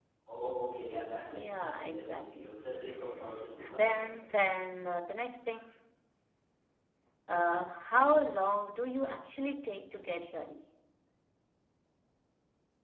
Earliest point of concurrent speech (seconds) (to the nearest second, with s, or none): 1 s